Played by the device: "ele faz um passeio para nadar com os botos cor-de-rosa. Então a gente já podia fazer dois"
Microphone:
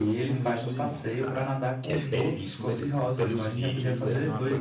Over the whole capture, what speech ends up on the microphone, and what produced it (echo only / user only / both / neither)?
both